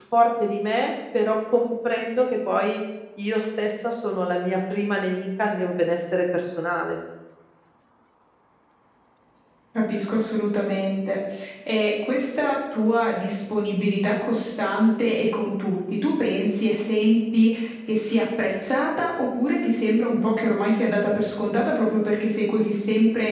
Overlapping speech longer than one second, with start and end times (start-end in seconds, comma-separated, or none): none